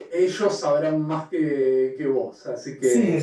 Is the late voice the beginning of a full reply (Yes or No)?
Yes